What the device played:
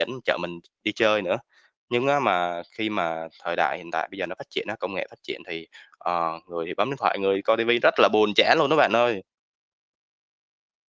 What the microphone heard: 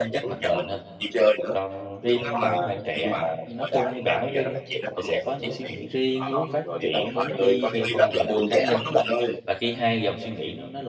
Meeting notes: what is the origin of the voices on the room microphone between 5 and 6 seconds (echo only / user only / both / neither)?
both